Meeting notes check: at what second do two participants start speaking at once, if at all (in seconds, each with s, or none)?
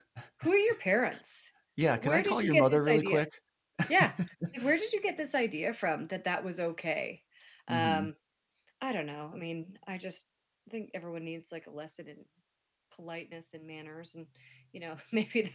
1.9 s